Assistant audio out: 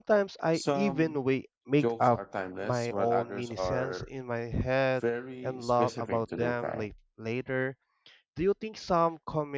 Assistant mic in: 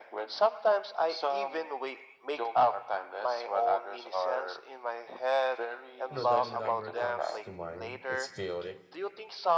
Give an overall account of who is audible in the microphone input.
both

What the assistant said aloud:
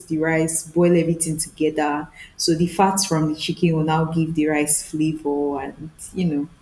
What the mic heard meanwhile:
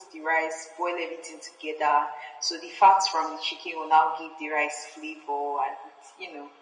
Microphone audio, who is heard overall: echo only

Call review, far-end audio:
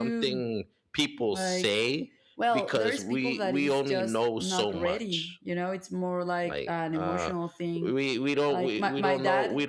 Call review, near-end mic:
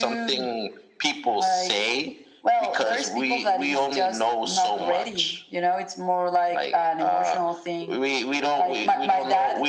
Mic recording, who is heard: echo only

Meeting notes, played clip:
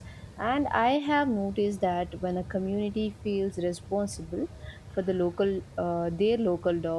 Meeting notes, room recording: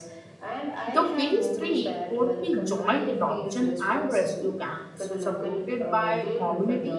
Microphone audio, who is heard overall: both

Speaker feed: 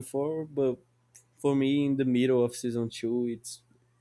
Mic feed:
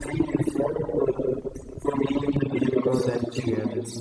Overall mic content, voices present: both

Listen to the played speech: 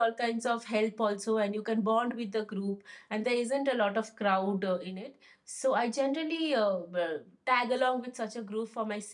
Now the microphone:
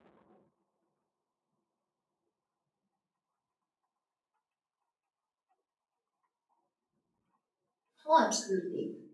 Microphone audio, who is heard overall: user only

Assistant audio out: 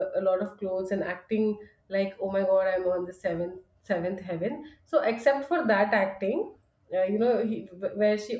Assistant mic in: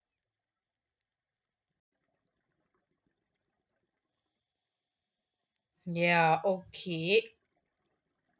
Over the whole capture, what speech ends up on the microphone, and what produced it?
user only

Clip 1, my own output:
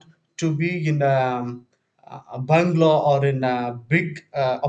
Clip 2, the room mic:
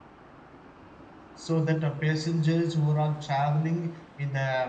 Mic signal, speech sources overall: user only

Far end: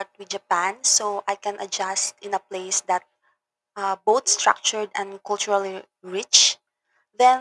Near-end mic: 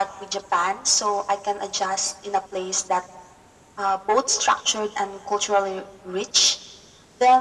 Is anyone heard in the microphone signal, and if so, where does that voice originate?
echo only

